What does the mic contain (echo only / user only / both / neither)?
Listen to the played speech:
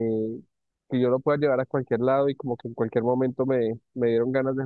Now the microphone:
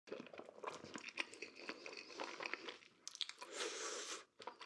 neither